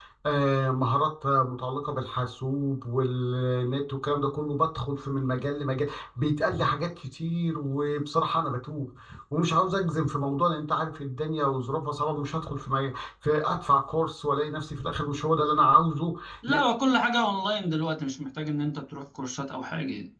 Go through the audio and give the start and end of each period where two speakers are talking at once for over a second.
none

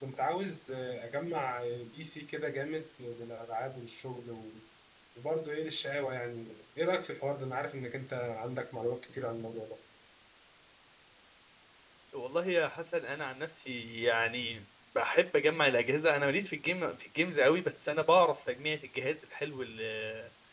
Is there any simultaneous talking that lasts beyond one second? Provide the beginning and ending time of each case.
none

